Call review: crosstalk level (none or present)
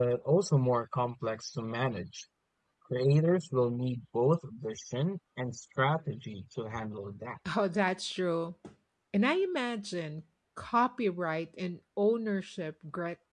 none